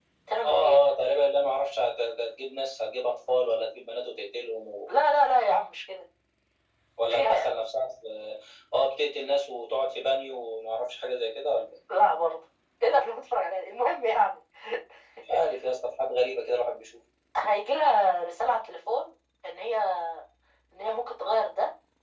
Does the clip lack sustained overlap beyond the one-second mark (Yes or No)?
Yes